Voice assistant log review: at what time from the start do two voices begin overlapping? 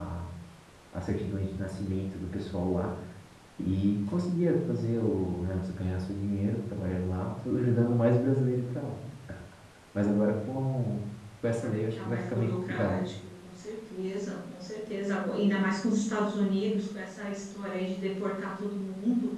11.6 s

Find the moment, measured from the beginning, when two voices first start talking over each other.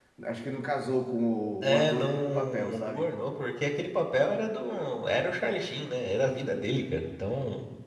1.6 s

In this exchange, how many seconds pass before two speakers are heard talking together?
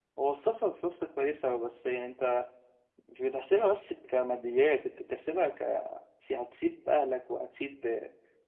none

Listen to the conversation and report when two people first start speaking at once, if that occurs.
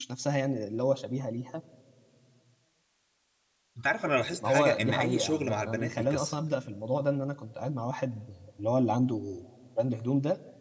4.4 s

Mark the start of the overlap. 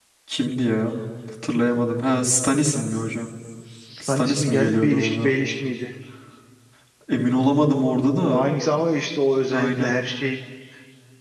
4.1 s

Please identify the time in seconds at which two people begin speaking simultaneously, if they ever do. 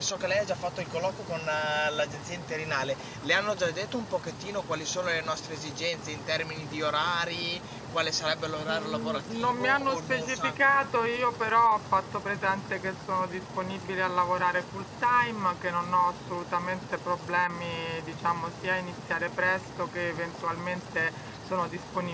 8.7 s

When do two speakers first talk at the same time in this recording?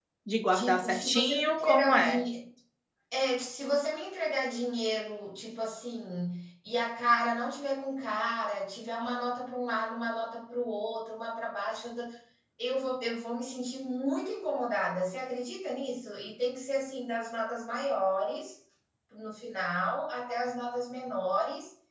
0.5 s

